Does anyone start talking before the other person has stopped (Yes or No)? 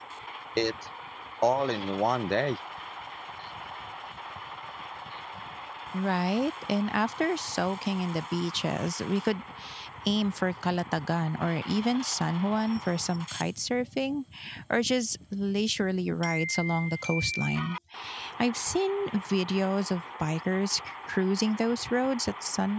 No